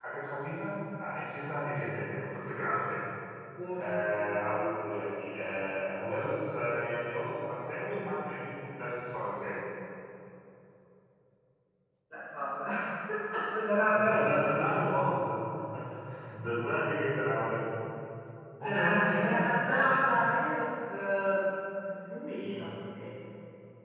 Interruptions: present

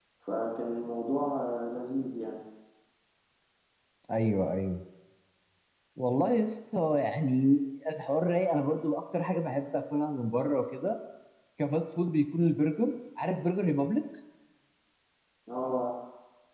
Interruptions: none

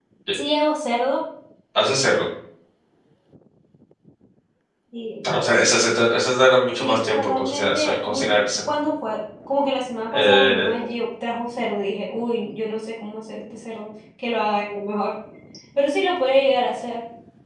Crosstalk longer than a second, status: present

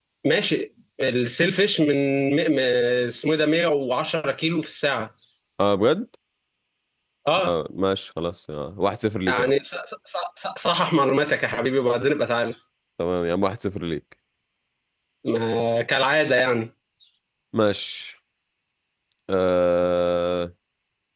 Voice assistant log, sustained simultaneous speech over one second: none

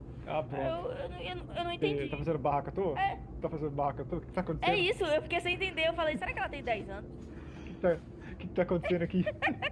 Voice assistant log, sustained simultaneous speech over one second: none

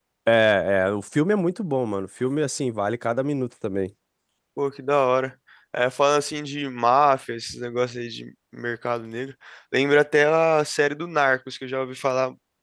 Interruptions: none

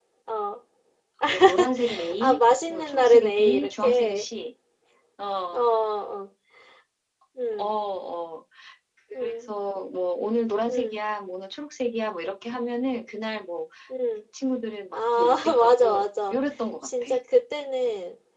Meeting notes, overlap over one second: present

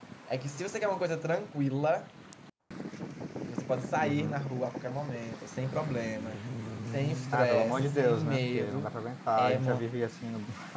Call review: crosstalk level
present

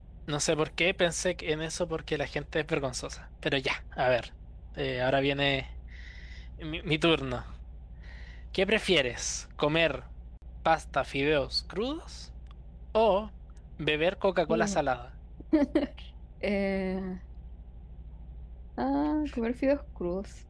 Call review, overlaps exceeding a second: none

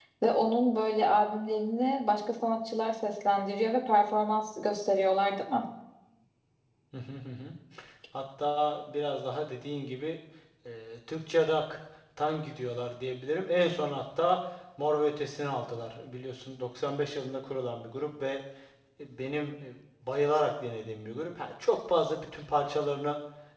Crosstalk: none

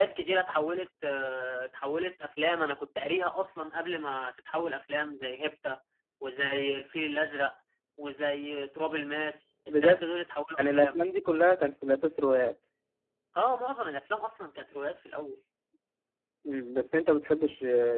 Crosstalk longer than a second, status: none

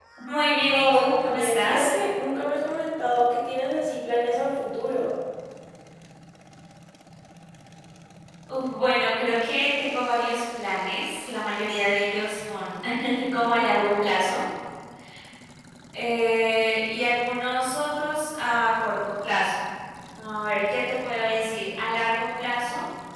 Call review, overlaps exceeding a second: present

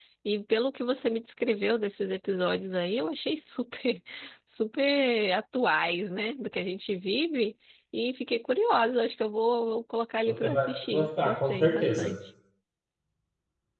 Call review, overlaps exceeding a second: present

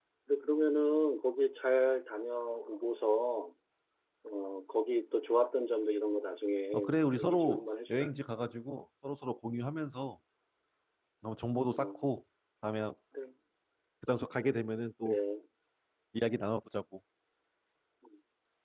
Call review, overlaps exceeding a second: present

